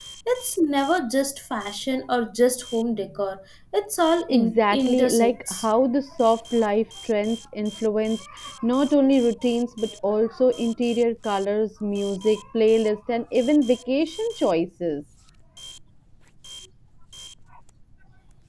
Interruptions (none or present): present